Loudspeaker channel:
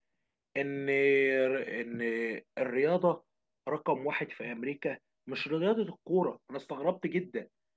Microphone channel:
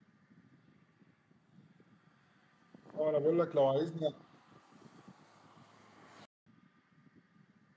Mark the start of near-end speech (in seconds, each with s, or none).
3.0 s